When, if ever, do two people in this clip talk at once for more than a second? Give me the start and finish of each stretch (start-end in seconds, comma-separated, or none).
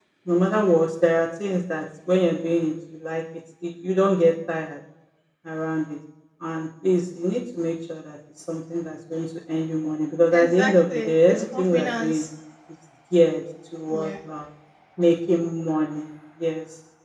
10.3-12.3